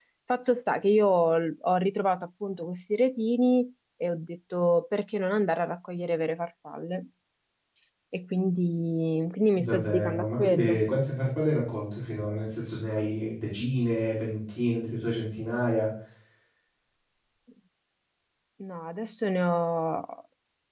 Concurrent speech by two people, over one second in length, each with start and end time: 9.6-10.8

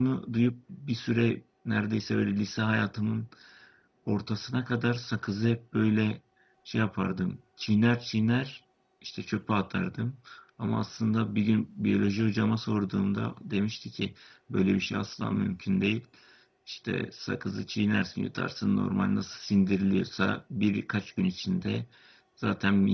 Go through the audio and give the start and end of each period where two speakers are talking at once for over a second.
none

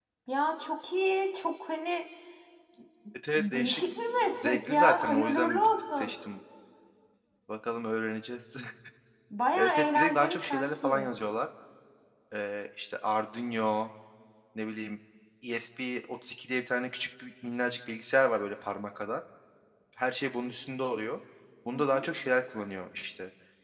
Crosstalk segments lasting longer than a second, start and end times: 4.3-6.1, 9.6-11.1

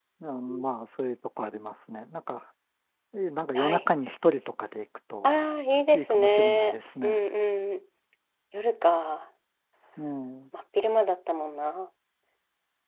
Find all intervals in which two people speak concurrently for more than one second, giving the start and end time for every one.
5.9-7.2

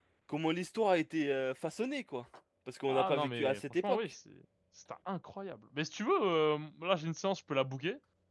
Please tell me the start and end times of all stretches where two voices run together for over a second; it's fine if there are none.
2.9-4.1

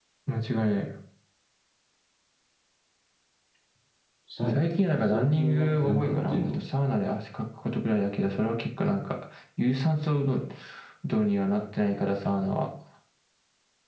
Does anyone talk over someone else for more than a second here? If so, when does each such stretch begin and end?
5.0-6.6

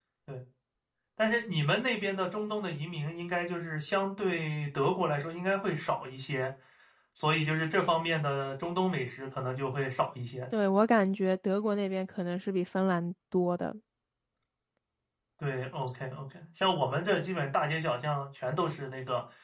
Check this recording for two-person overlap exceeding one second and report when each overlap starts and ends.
none

